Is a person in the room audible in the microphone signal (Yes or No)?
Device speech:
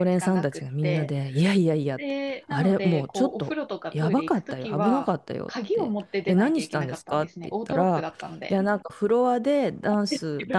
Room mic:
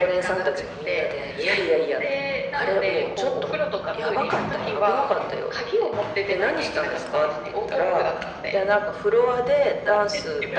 No